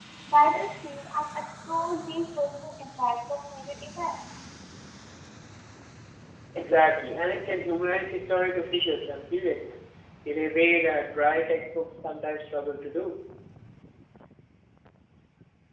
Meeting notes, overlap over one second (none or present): none